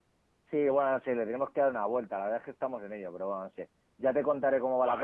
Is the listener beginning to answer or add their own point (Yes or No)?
No